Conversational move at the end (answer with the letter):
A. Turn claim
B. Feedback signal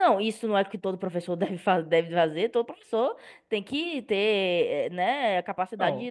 A